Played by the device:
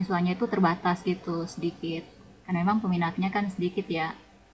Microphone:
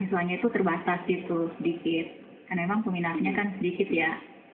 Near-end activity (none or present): present